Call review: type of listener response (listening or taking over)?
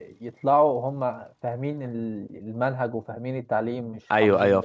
taking over